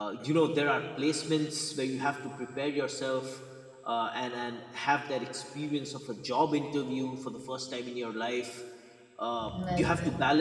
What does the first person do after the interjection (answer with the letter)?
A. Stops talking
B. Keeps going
B